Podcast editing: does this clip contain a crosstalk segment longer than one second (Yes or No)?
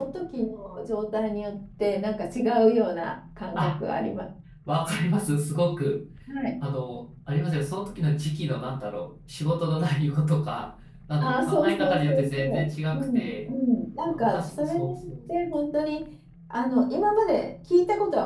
Yes